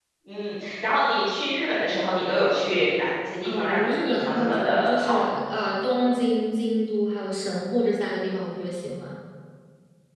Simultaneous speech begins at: 3.4 s

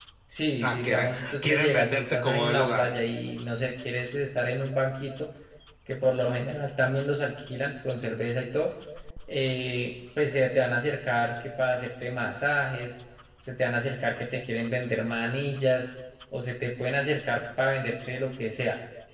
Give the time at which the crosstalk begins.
0.6 s

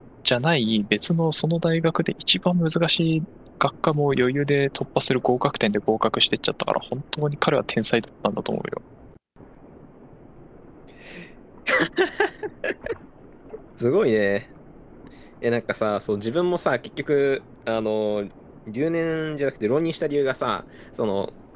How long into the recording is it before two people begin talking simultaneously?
none

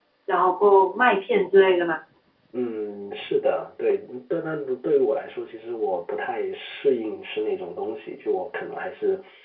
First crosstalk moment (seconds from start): none

